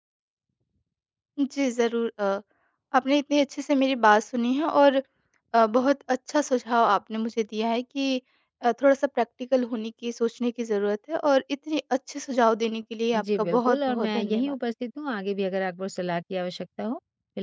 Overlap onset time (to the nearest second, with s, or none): 13 s